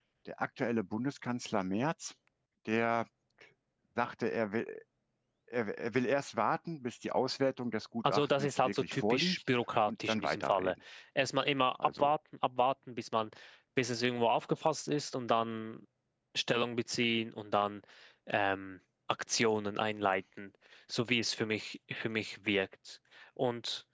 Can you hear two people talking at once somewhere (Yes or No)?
Yes